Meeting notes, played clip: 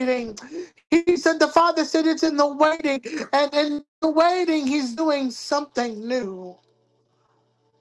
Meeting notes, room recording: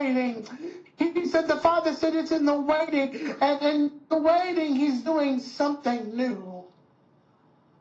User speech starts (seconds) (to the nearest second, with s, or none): none